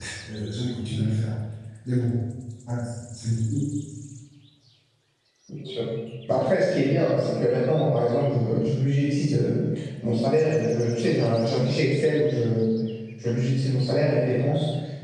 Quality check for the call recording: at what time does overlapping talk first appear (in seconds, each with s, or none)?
none